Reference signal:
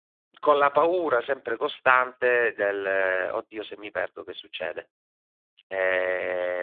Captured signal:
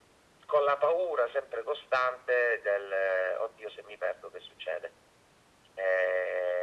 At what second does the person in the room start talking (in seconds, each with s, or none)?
none